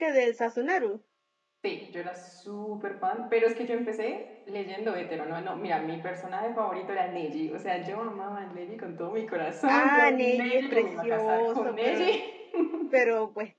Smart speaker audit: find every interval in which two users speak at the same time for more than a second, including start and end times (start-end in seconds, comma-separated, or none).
9.7-12.2